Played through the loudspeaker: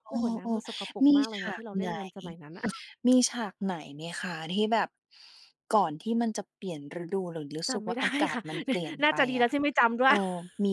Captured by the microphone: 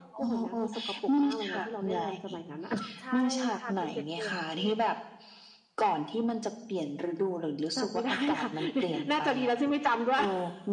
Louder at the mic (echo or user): echo